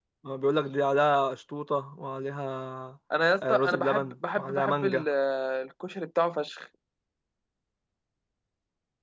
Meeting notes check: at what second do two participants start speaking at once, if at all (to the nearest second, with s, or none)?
3 s